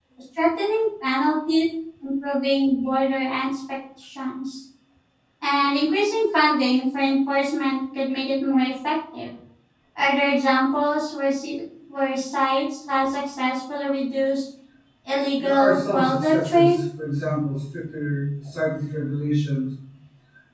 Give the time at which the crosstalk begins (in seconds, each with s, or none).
15.4 s